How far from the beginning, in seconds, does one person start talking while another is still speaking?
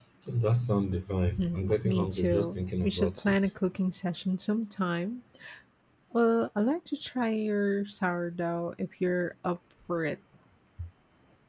1.4 s

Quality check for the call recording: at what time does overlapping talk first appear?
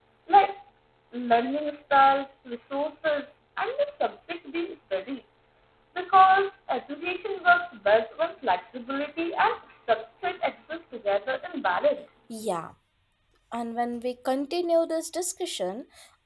none

